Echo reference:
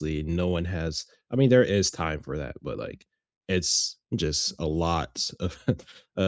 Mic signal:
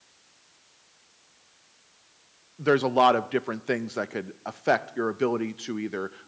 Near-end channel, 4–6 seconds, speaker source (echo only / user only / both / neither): user only